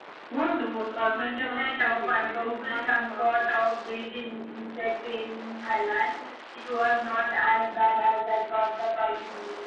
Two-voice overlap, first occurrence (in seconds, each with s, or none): 1.0 s